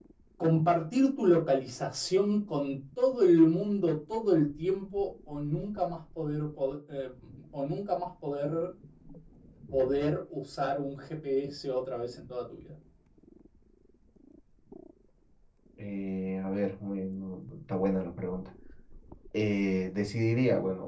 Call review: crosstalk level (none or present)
none